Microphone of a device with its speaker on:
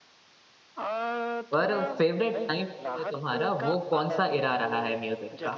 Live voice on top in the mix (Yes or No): Yes